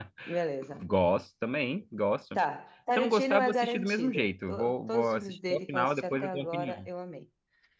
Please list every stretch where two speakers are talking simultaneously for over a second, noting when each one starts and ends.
3.0-6.9

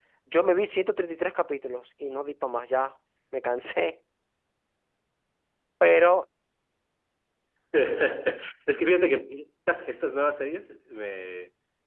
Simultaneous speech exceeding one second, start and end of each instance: none

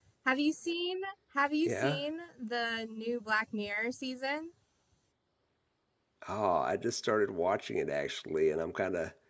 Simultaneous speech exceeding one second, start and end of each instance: none

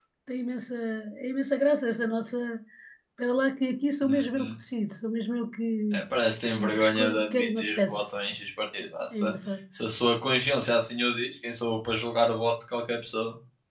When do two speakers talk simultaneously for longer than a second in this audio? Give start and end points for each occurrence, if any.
6.5-8.0

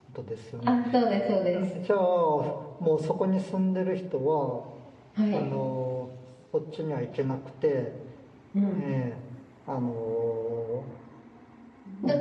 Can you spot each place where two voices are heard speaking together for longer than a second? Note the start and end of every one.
none

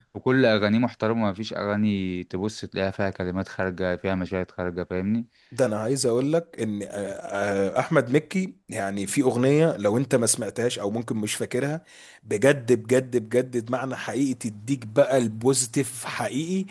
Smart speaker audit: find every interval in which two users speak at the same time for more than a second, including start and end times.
none

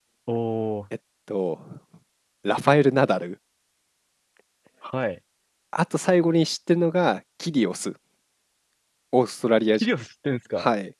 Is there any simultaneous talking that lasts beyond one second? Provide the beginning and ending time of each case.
none

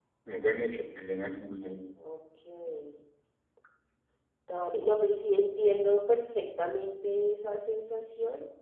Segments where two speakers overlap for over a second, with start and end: none

